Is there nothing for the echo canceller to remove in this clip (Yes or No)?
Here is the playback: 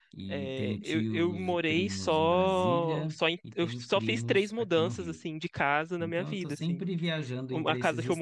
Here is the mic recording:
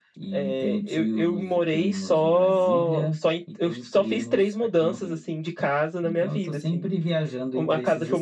No